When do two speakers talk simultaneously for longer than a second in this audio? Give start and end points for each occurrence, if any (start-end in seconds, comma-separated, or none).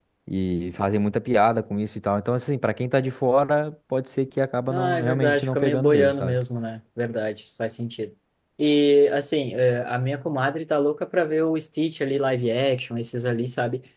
4.7-6.4